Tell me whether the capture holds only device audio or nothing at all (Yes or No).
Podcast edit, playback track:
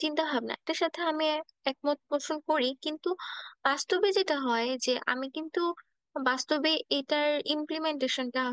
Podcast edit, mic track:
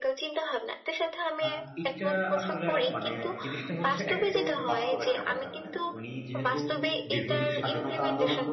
No